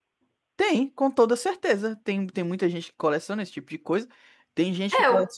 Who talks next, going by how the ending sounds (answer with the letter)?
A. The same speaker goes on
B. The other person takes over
A